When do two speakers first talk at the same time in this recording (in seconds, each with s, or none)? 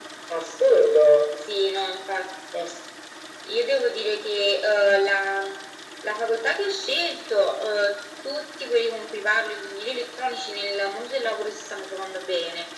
none